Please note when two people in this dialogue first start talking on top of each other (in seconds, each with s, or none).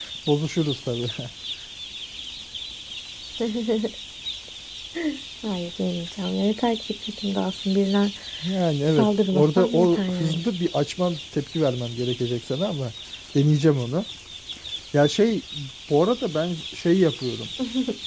9.0 s